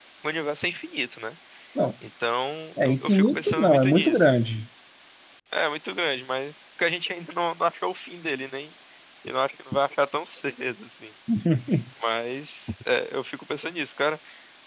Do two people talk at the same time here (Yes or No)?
Yes